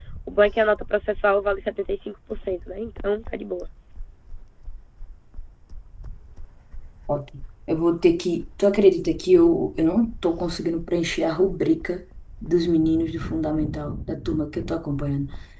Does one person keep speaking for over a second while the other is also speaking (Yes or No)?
No